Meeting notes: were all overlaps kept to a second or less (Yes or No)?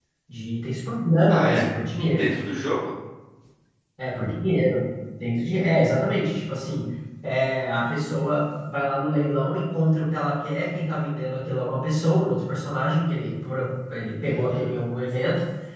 Yes